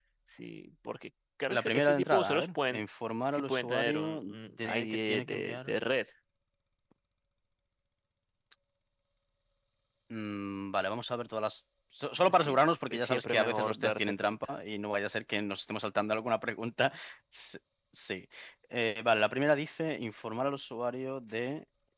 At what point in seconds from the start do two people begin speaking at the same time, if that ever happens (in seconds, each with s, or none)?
1.5 s